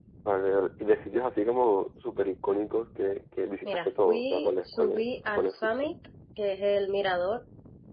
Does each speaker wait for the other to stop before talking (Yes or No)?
No